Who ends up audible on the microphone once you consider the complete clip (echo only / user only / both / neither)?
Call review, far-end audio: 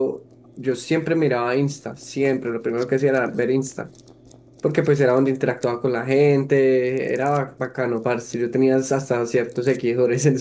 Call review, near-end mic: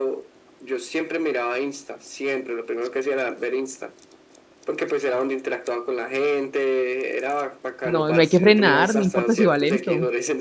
both